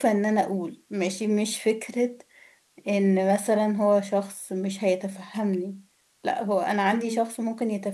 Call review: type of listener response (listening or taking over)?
listening